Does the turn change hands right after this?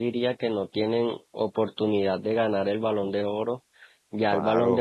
No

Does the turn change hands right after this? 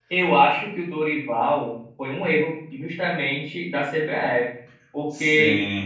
No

